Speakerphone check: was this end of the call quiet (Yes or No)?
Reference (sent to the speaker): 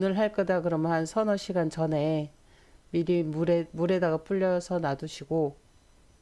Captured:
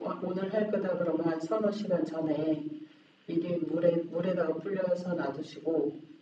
Yes